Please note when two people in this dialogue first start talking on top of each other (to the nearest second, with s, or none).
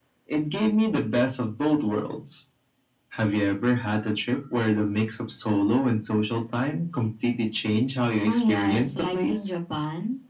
8 s